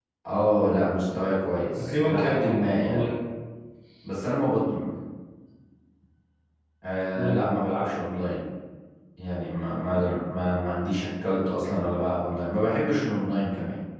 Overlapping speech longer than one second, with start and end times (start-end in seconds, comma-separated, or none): 1.8-3.1